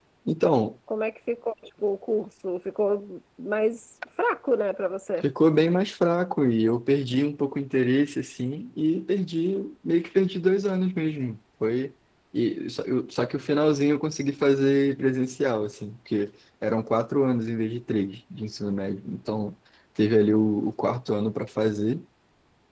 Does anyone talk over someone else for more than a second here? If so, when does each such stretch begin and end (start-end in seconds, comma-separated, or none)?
none